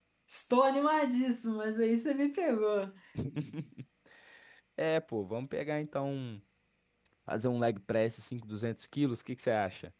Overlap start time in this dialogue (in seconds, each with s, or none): none